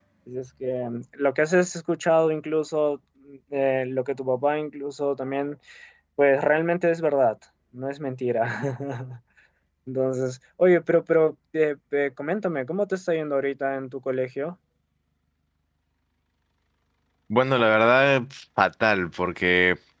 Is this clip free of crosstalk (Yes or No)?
Yes